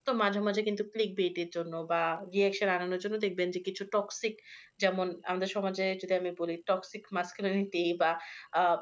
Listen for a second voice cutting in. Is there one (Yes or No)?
No